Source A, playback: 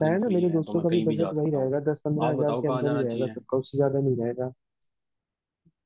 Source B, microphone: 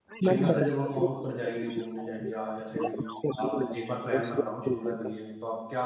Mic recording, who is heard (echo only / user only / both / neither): both